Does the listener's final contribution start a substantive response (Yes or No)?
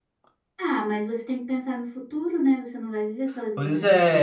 Yes